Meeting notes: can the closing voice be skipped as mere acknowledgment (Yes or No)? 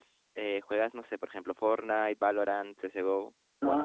No